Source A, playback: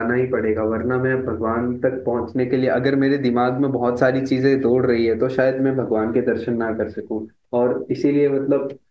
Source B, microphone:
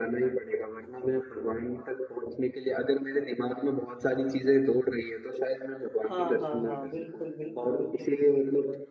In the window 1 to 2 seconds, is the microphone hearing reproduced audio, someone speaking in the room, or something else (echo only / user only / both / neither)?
echo only